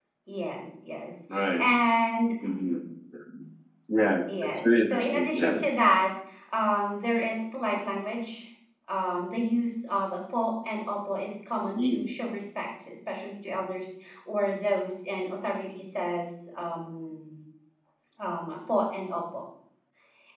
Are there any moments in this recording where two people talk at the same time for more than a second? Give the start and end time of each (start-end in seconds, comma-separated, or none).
4.3-5.6